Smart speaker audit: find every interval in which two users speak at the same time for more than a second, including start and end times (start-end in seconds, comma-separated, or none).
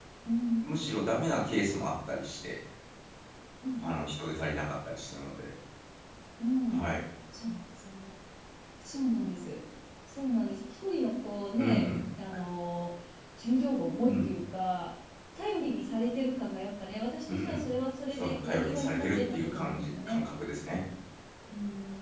18.1-20.2